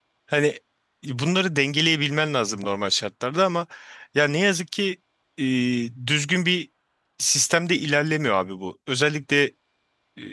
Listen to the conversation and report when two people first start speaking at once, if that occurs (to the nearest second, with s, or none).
none